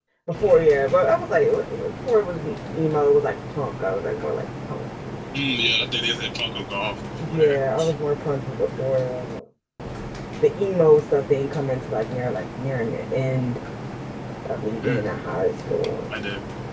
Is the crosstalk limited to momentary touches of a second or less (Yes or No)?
Yes